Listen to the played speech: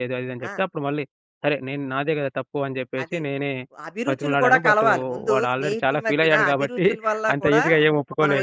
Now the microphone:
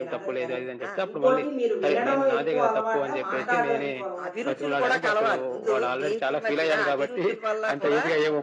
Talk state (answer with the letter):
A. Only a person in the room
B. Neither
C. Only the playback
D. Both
D